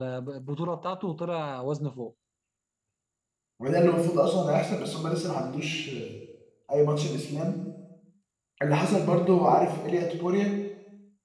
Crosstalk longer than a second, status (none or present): none